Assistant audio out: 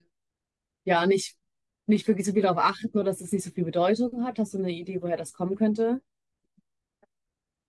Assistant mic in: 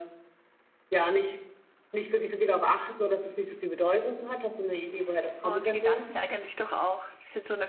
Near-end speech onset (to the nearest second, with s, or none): 5 s